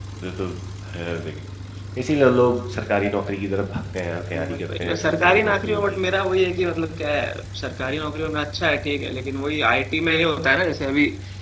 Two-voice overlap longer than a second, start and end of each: 4.4-5.8

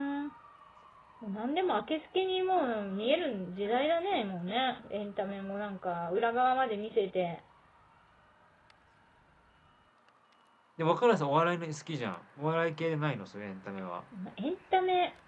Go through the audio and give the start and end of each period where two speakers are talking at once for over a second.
none

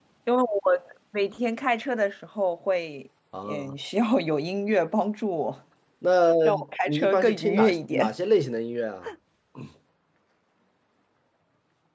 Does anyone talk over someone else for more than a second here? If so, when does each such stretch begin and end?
6.9-8.1

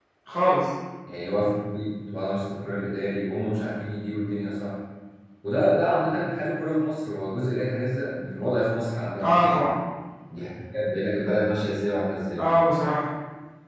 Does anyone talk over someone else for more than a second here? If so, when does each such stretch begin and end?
none

